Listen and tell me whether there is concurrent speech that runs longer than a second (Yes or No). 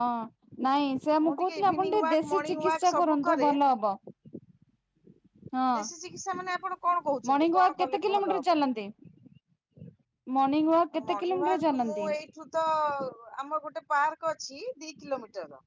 Yes